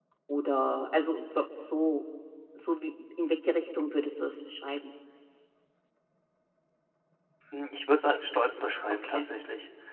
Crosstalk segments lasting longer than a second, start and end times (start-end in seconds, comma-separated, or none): none